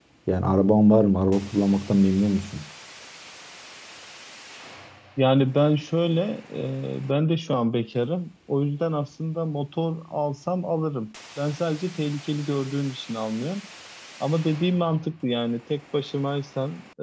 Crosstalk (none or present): none